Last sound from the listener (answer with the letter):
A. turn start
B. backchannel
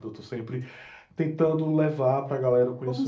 A